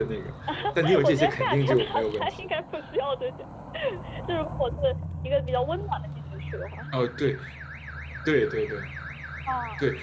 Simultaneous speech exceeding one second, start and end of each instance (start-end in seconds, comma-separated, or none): 1.0-2.6